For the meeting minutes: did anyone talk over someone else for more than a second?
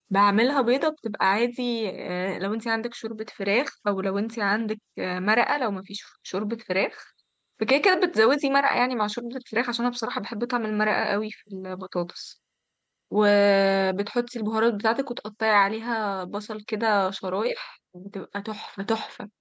No

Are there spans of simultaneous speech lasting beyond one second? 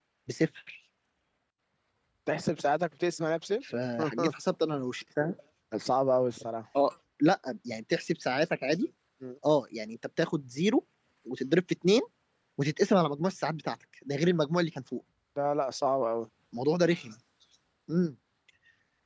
No

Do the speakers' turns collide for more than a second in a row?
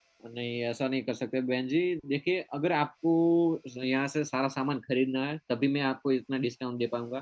No

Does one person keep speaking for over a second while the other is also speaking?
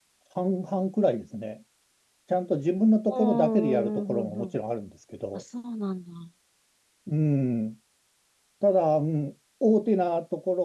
Yes, from 3.1 s

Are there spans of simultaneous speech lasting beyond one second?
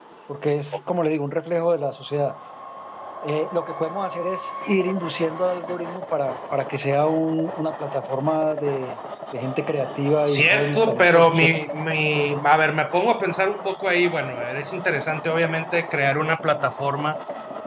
Yes, from 10.3 s

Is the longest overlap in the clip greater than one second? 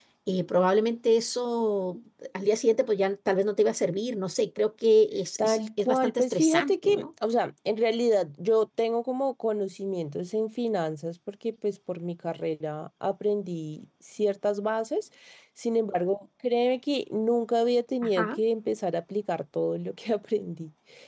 Yes, from 5.4 s

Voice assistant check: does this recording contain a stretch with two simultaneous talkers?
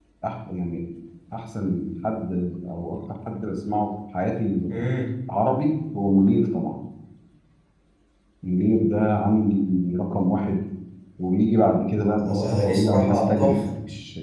Yes, from 12.2 s

